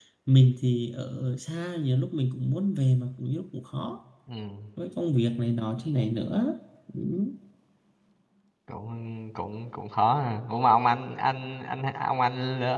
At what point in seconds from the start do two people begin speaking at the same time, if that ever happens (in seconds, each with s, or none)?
none